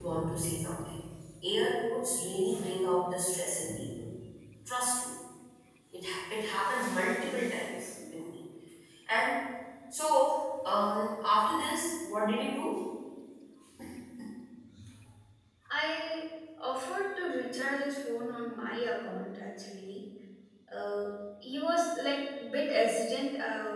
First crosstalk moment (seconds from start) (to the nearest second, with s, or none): none